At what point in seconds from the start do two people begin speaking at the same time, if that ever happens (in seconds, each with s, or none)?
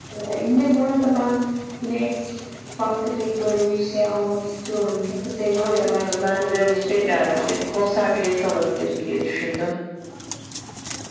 5.5 s